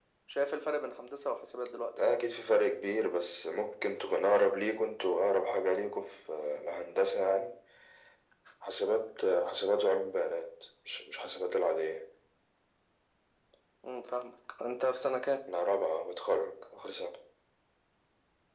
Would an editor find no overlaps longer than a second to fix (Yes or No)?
Yes